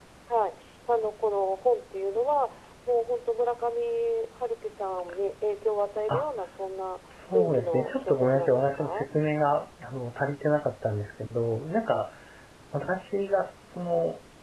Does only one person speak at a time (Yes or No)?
No